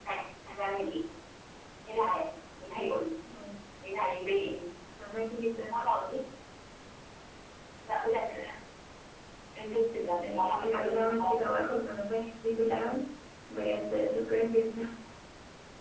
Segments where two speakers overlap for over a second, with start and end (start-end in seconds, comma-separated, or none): 9.9-11.6